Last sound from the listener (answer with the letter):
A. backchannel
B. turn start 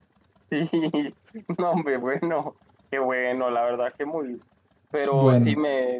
A